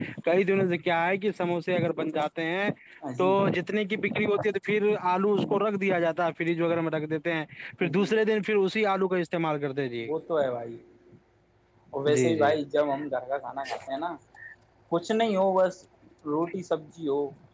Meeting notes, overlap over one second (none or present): none